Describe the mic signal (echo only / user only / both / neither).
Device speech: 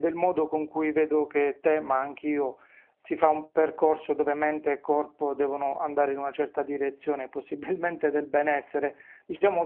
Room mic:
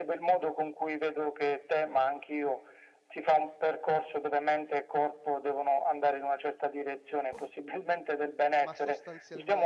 both